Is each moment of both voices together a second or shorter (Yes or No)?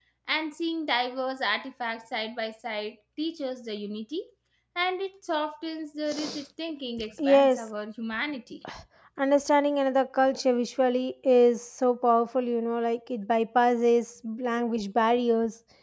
Yes